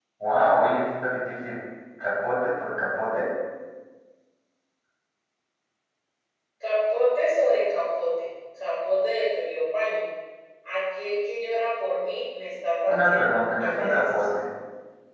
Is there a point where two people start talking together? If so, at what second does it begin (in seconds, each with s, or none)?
12.9 s